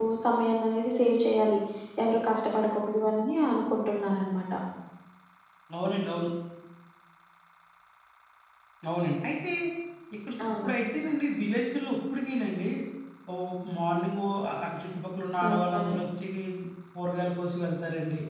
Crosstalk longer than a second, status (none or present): none